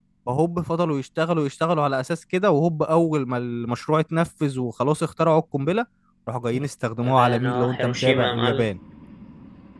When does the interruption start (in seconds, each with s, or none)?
7.0 s